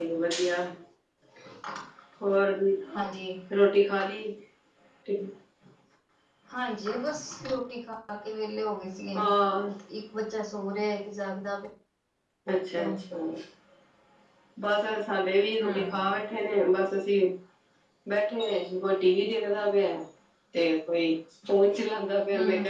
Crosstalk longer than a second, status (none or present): none